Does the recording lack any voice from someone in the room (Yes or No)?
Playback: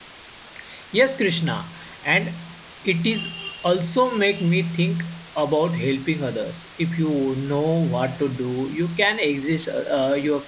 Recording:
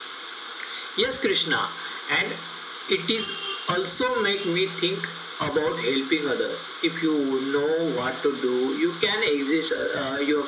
Yes